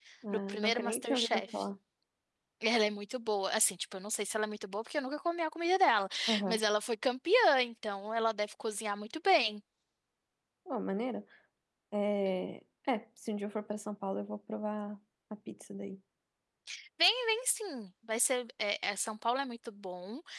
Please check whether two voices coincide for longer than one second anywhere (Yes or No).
Yes